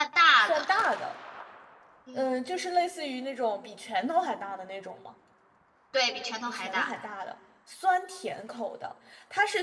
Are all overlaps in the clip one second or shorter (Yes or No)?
Yes